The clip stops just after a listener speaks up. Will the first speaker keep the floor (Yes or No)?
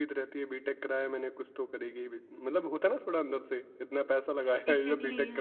No